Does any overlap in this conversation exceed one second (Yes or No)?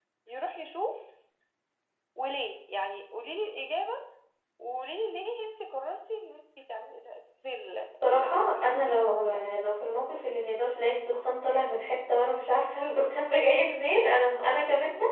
Yes